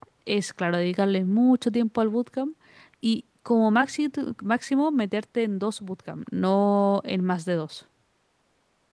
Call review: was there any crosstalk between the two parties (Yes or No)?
No